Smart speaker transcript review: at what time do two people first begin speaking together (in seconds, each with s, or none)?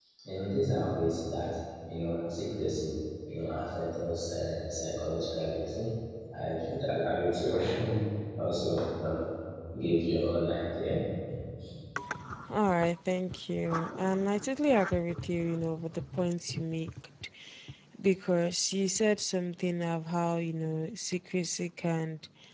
none